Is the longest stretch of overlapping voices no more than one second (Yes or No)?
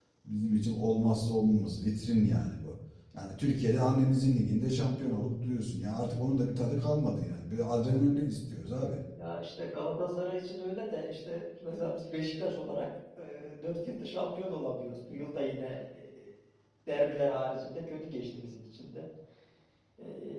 Yes